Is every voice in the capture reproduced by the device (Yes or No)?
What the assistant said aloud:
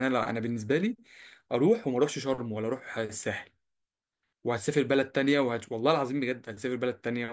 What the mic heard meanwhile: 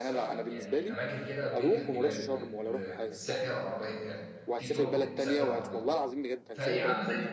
No